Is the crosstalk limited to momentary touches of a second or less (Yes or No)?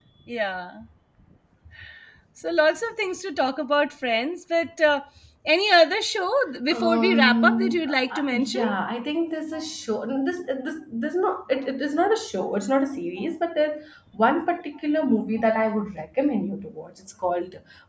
No